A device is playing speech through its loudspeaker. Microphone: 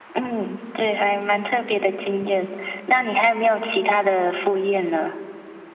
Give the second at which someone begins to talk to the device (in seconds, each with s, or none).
none